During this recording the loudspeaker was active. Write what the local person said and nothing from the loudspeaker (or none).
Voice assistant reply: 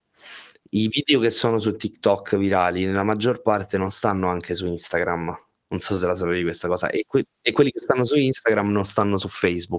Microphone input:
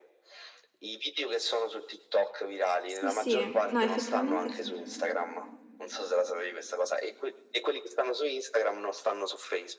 Sì, sì. No, effettivamente sì.